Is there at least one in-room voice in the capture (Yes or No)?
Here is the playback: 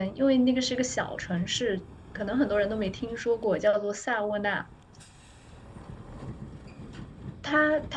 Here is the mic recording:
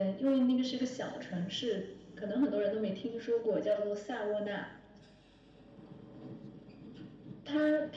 No